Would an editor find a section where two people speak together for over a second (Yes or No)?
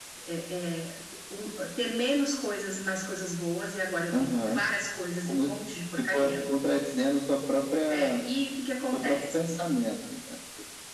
No